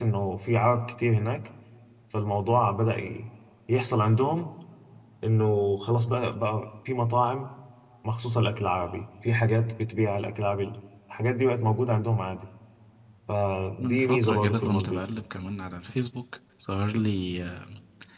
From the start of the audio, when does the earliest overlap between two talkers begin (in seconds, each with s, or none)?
13.8 s